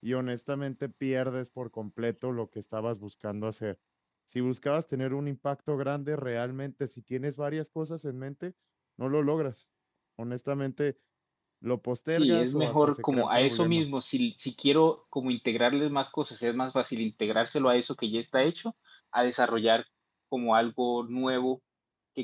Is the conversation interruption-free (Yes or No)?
No